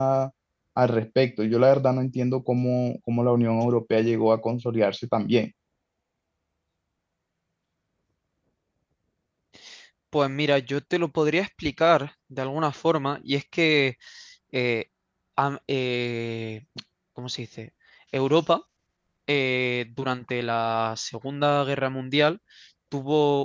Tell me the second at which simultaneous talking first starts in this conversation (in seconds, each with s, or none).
none